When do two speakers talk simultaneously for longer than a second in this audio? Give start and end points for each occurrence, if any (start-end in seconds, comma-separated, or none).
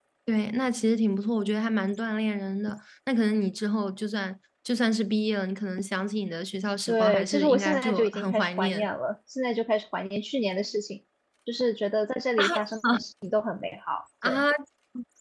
6.9-8.9